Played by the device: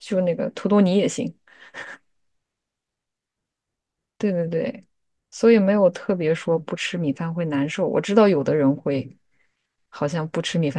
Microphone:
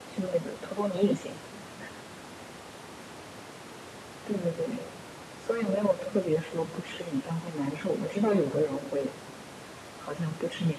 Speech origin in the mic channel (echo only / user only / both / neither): echo only